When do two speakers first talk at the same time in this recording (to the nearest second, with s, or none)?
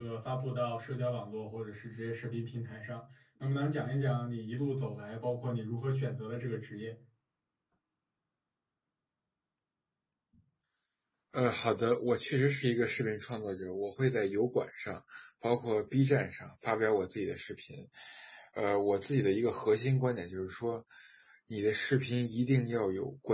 none